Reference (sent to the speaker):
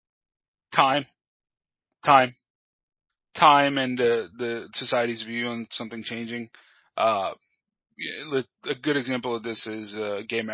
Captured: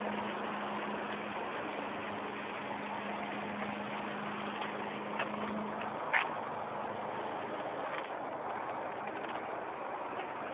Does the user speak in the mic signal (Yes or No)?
No